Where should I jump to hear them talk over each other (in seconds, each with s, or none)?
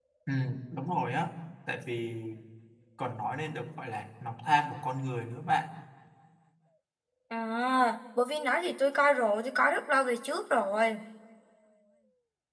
none